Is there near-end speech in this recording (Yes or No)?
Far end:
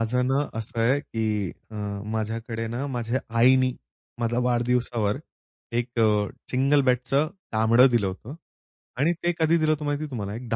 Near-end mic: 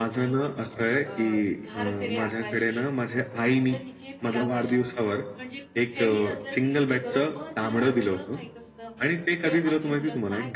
Yes